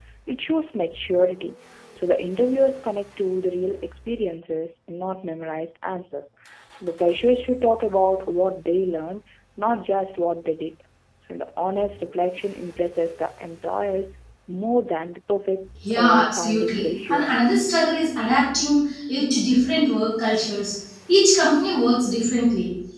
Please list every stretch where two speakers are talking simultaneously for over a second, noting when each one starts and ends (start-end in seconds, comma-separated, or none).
16.0-17.5